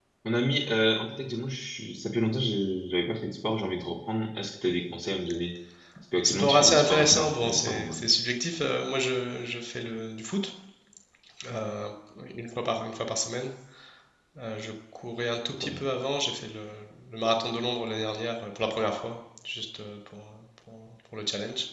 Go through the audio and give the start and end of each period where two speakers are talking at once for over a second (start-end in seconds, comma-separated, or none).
6.2-8.0